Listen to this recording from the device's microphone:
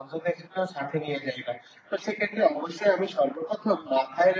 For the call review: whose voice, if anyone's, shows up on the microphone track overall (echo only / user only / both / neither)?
echo only